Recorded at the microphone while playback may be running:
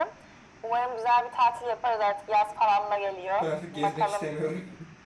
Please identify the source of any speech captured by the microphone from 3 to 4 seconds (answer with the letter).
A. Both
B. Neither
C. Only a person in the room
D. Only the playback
A